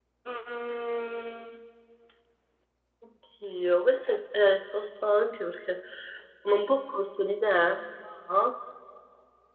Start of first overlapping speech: none

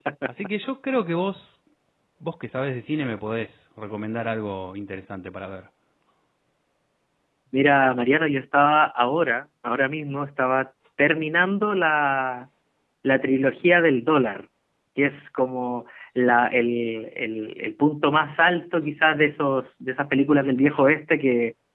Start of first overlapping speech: none

